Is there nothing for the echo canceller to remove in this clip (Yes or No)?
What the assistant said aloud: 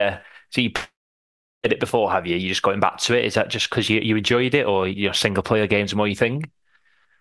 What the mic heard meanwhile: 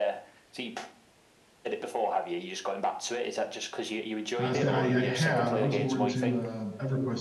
No